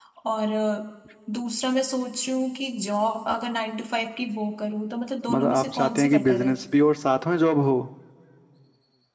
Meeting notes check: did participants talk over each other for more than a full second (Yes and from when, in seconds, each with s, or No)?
Yes, from 5.3 s